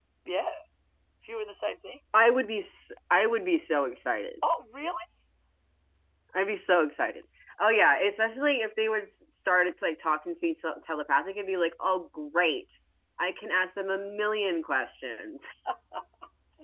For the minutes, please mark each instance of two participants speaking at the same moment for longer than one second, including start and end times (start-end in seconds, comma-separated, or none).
none